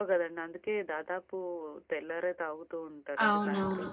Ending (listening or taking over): taking over